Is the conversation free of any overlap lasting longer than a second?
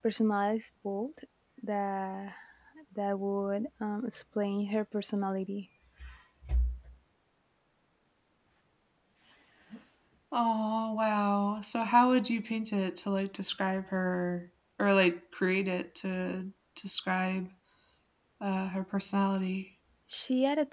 Yes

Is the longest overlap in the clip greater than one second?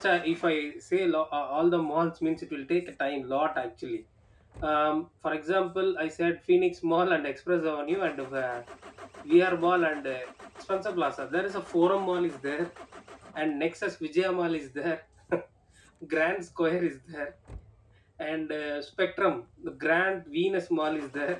No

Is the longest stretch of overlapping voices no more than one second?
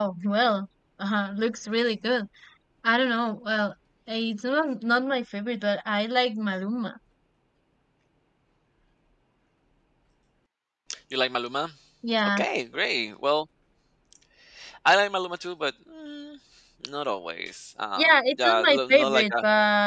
No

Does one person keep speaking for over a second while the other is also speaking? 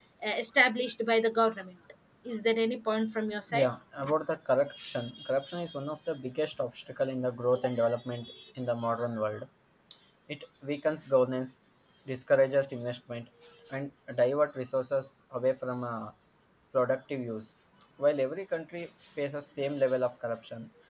No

